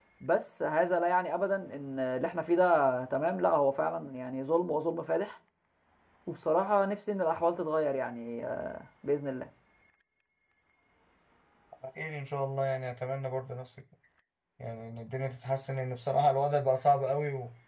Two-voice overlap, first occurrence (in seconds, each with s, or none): none